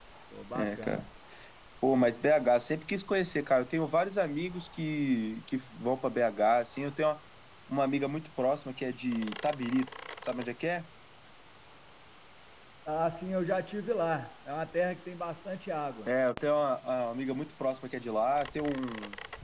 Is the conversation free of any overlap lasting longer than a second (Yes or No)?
Yes